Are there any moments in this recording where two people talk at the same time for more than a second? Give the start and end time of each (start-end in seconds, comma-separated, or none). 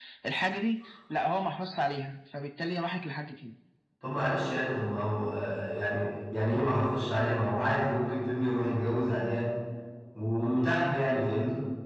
none